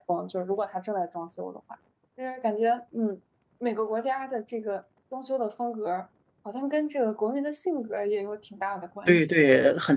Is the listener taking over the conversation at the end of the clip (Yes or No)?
Yes